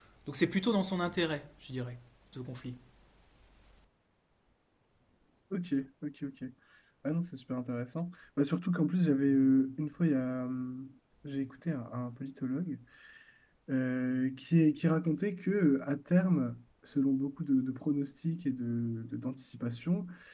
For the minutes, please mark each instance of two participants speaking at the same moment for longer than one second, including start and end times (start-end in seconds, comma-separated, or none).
none